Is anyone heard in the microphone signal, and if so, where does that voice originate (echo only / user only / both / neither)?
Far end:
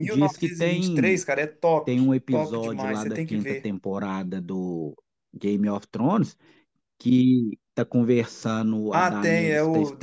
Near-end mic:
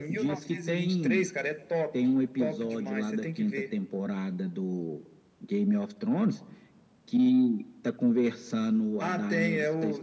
echo only